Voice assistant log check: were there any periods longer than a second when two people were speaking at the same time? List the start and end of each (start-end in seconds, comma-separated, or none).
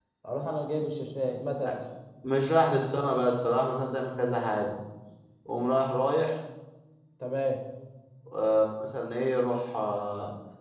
none